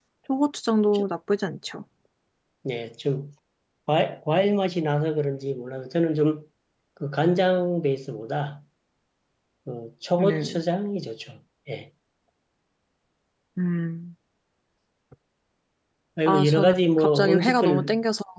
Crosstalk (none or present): present